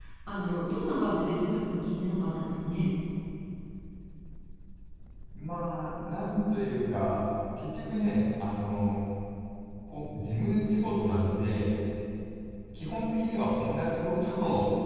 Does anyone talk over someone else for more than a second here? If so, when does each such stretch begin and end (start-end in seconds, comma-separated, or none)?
none